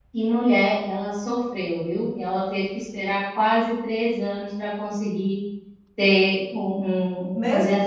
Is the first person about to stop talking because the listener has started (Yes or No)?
Yes